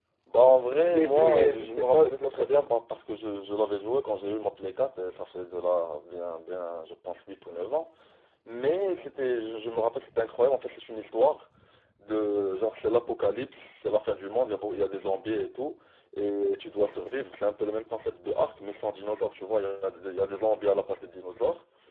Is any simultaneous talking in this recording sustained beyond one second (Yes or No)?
Yes